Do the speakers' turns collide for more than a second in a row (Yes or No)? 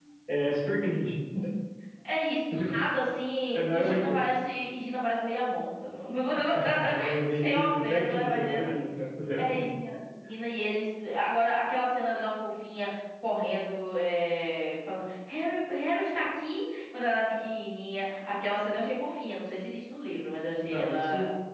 Yes